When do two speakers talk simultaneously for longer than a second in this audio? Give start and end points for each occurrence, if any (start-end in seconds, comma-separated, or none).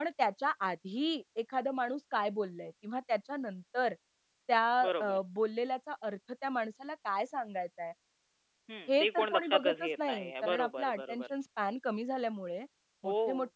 9.0-11.2